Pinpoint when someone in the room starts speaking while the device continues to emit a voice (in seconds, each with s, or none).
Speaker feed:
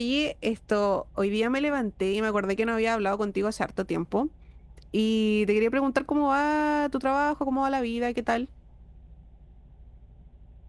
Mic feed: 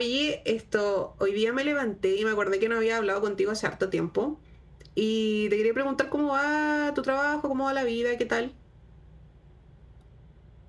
none